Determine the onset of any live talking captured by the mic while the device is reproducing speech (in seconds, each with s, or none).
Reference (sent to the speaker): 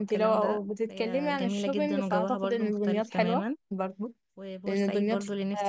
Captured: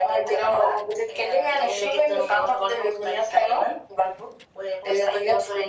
none